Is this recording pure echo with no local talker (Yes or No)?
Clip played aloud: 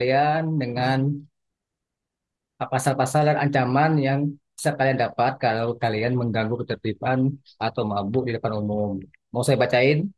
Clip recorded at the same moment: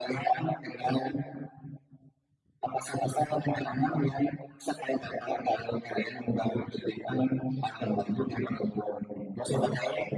Yes